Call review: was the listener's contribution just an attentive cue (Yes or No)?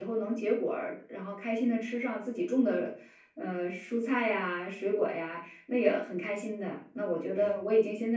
Yes